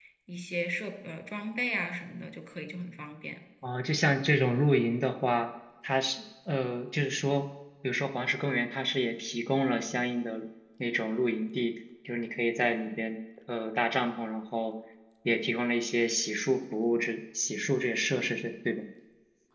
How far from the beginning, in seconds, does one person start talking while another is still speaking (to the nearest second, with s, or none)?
none